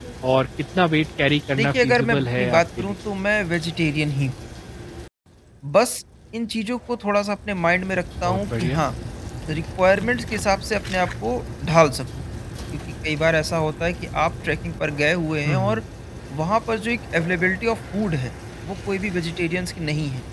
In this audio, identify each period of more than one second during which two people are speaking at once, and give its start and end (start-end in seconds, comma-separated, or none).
1.6-3.0